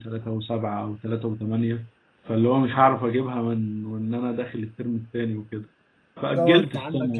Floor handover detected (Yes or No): Yes